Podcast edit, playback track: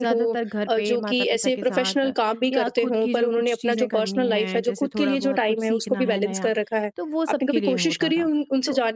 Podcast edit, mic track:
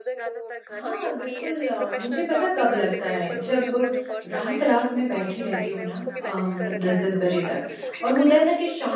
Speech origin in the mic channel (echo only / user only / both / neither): both